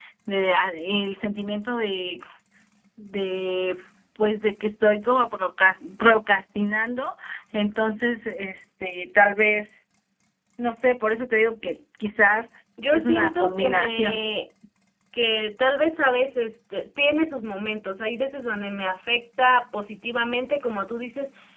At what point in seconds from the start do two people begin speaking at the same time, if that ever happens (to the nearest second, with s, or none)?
13 s